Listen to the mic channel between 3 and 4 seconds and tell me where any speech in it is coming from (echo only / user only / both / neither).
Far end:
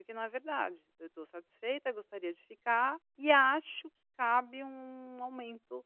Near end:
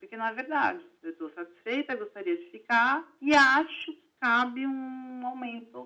echo only